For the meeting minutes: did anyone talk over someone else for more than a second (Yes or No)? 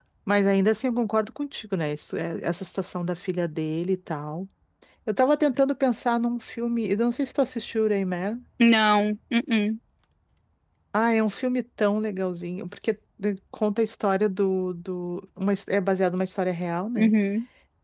No